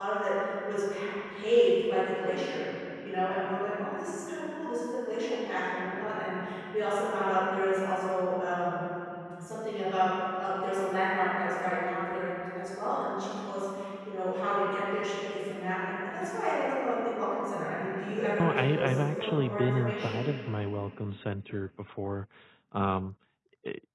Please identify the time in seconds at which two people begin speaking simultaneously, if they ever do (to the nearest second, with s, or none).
18 s